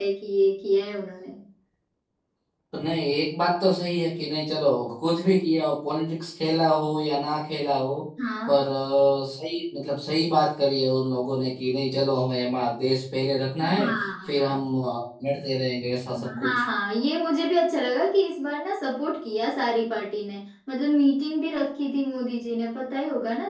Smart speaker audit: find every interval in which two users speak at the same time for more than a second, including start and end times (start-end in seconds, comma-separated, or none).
none